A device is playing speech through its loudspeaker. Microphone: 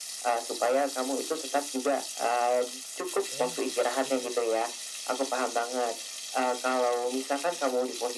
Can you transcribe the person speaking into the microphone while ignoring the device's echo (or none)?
Oh, gitu ya.